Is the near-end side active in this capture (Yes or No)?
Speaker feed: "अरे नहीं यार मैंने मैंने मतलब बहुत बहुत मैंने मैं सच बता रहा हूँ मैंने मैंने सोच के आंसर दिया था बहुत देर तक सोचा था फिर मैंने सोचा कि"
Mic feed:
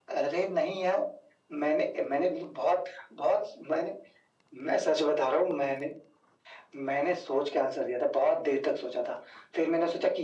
No